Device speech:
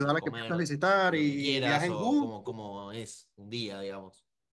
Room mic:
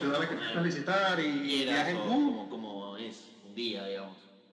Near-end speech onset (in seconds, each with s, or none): none